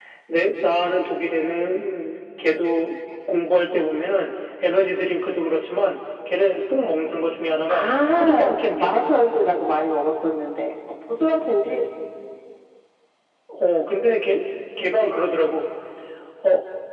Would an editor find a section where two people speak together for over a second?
Yes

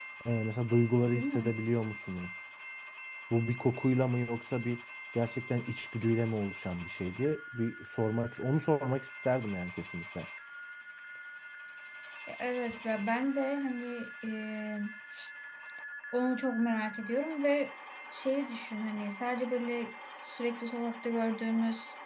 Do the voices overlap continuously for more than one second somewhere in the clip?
No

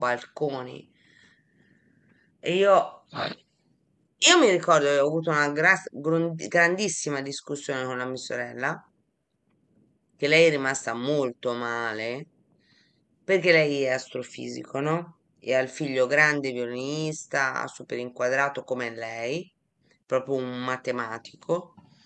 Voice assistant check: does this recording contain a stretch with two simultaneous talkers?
No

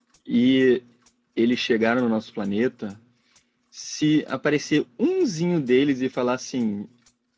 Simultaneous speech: No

